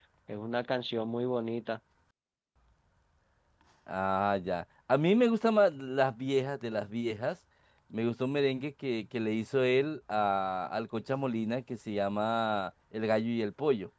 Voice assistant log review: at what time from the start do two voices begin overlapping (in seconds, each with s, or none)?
none